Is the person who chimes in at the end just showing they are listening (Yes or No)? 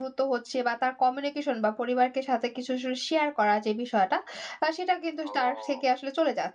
Yes